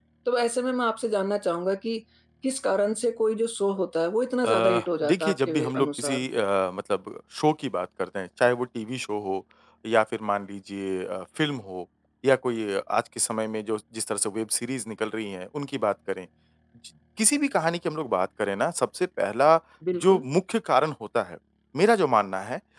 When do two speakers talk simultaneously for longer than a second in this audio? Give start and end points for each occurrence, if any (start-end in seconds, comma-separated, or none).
4.4-6.2